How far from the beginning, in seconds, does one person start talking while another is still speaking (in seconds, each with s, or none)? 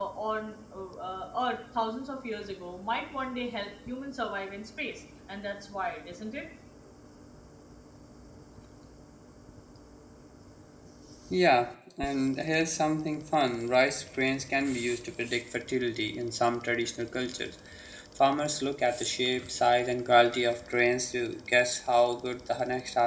none